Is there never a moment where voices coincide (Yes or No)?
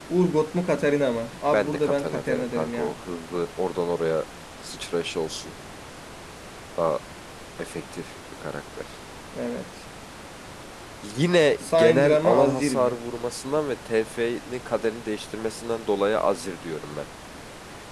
No